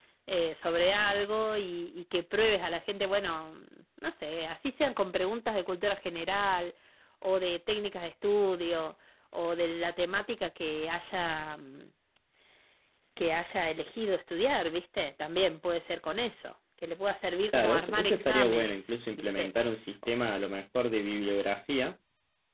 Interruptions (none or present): present